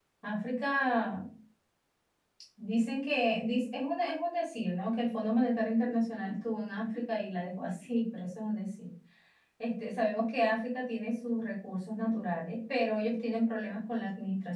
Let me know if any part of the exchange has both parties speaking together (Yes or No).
No